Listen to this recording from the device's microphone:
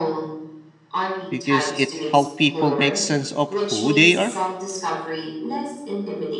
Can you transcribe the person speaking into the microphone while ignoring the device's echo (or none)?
Because it helps people make sense of who they are?